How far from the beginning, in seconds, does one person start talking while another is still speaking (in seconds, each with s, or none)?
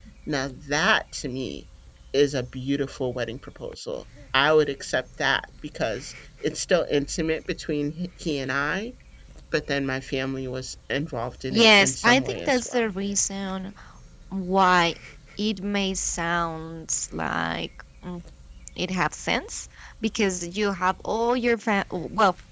11.5 s